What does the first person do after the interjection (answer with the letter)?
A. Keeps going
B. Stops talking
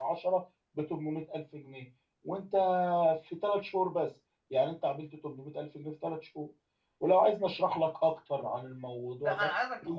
B